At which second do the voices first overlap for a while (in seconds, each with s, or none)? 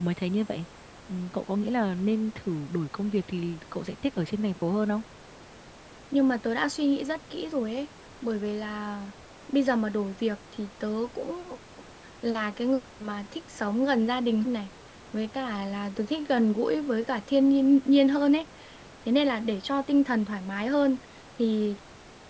none